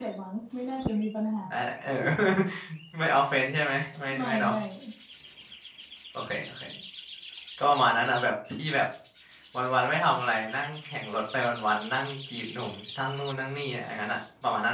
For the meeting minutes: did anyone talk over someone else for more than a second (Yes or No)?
No